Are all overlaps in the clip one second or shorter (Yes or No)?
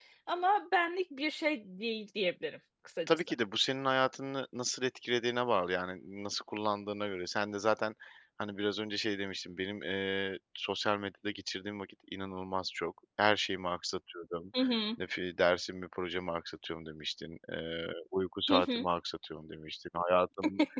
Yes